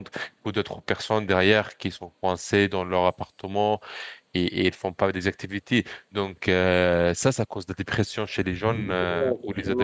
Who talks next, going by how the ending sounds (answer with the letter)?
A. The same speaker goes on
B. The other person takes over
B